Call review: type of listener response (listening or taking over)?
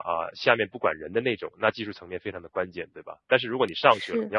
listening